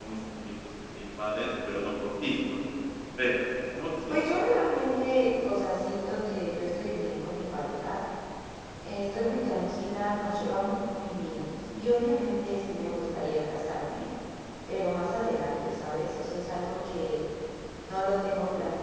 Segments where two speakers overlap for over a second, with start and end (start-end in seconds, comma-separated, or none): none